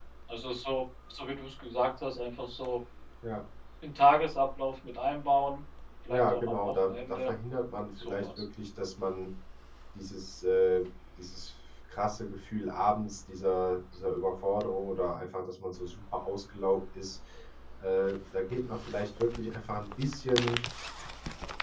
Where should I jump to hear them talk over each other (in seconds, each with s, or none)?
6.1 s